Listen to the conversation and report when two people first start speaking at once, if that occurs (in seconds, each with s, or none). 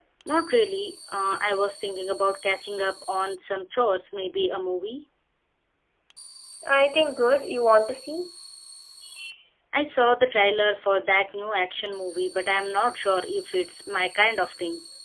none